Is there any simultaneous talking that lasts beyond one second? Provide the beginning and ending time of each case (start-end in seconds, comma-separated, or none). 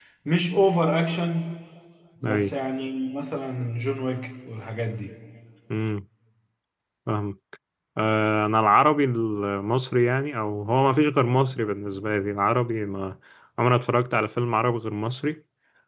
none